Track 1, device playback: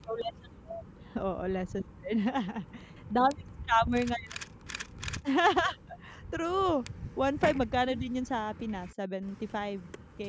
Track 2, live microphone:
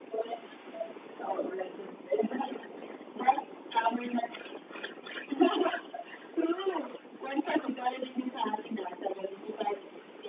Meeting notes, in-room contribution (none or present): none